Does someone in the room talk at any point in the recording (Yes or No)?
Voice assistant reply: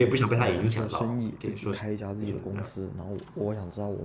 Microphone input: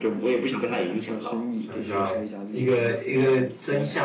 Yes